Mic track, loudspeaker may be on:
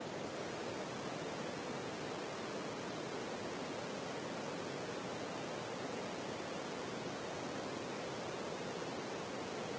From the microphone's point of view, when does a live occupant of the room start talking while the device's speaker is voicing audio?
none

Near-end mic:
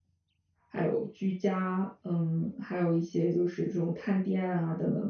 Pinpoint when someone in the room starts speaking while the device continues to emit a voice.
0.7 s

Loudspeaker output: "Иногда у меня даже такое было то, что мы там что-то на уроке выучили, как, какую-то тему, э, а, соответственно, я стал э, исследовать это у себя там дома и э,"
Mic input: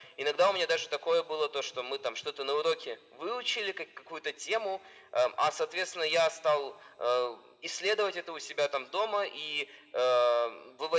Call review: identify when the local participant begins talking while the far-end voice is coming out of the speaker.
none

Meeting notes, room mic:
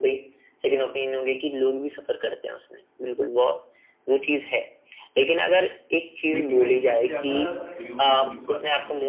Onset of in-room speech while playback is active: 6.3 s

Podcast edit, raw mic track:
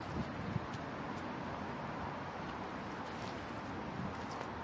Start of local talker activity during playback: none

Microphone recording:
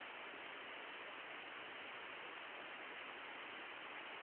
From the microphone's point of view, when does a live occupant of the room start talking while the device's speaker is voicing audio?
none

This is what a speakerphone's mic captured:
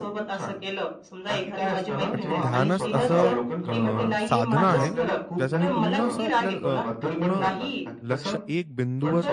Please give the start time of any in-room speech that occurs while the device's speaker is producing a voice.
2.1 s

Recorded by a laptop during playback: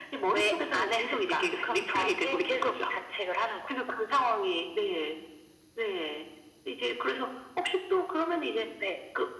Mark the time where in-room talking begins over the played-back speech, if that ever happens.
none

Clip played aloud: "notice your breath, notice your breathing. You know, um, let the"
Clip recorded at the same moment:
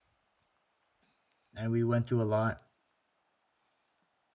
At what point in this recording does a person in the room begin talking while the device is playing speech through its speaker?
1.5 s

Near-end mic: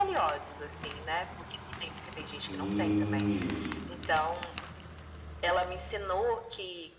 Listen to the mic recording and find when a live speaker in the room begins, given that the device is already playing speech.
2.5 s

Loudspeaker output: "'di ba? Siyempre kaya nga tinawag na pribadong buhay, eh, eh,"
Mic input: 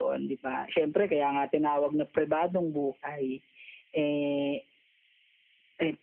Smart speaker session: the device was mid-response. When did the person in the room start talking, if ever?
none

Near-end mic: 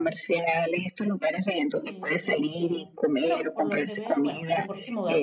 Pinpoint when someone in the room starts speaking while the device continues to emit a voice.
1.9 s

